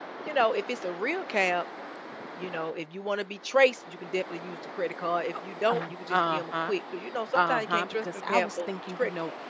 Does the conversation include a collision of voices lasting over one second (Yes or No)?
Yes